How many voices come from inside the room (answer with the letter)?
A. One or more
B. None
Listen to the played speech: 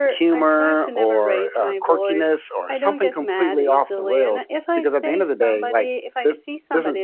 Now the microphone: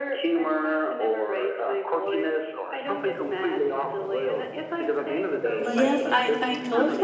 A